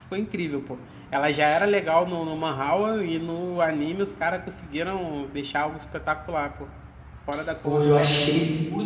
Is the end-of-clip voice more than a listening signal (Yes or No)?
Yes